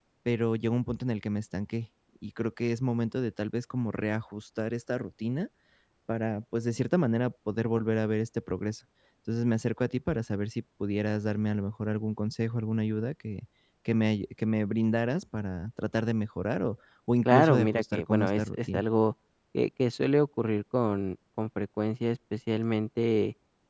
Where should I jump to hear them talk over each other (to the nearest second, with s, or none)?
17 s